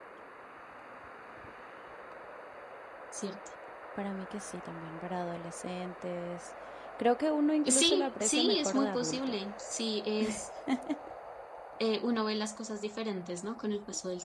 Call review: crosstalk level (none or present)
present